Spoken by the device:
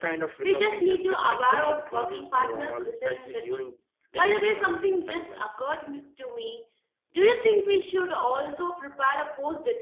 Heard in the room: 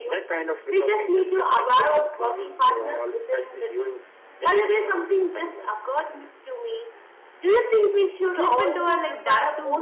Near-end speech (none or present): present